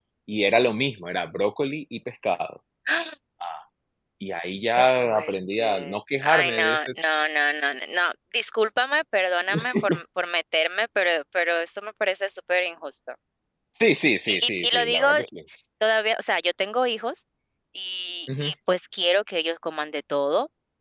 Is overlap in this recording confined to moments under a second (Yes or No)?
No